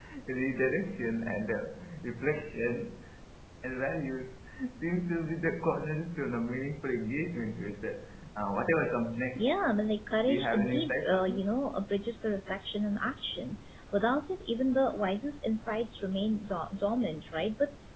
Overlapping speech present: Yes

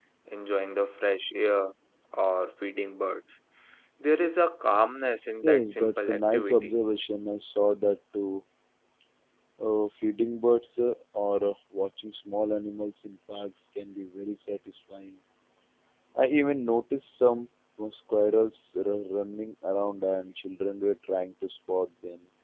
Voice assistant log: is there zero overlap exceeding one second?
No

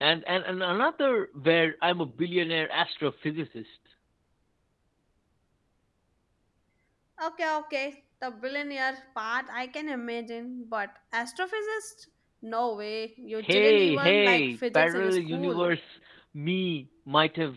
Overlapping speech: Yes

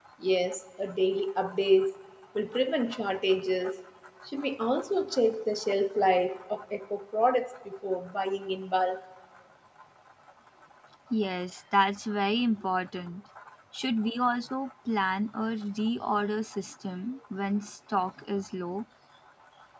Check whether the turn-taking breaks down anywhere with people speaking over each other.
No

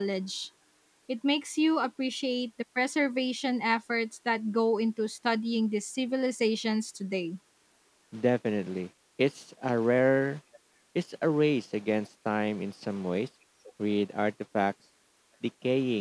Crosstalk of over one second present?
No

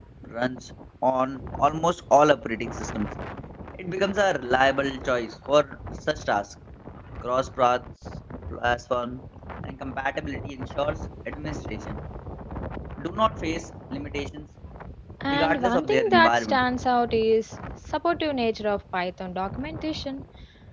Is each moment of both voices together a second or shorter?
No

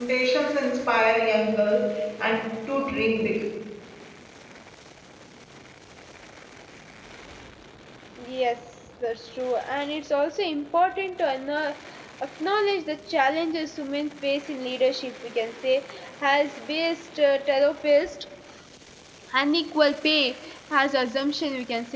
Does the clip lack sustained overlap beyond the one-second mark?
Yes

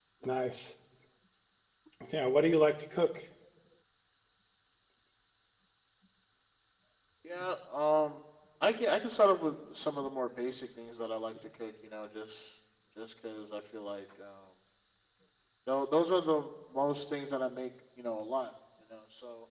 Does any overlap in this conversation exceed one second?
No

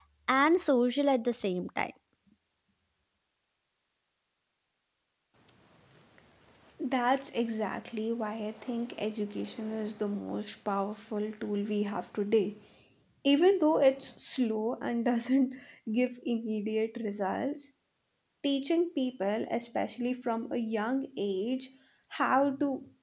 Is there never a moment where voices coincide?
Yes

